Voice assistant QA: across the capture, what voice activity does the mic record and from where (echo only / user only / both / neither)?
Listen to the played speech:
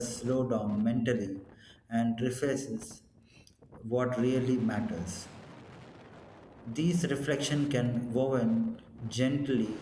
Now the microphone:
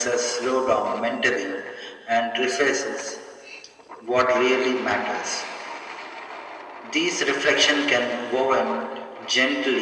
echo only